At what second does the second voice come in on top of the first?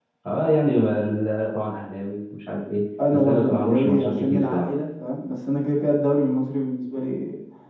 3.0 s

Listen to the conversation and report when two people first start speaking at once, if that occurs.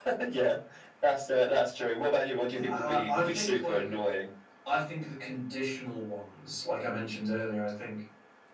2.6 s

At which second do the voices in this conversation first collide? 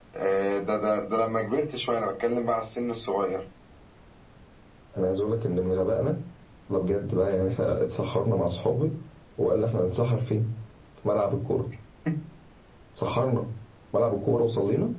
none

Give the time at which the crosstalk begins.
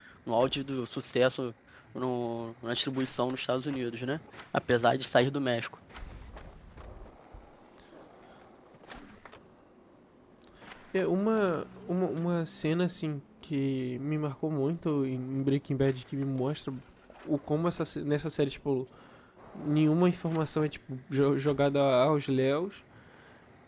none

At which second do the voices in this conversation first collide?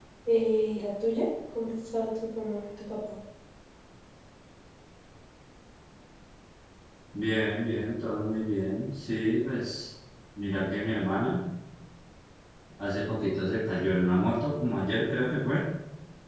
none

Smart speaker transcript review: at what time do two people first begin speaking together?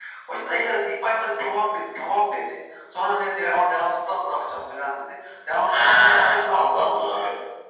5.7 s

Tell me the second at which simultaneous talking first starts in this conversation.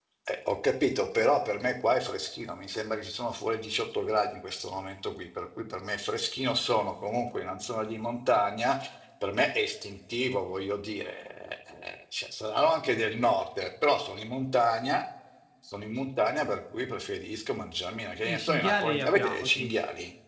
18.2 s

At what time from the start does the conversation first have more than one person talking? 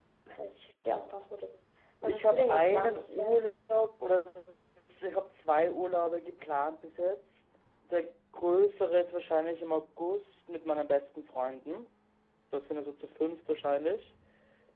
2.0 s

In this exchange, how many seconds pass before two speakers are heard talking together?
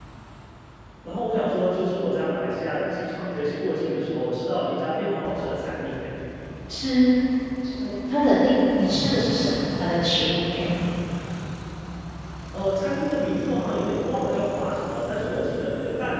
none

